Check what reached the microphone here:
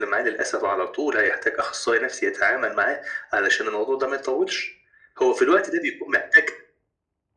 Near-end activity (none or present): none